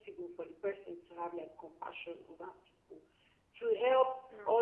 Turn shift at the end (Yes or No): No